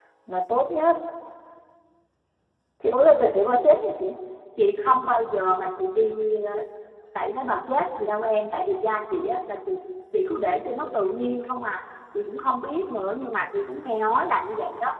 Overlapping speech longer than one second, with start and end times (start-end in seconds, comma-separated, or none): none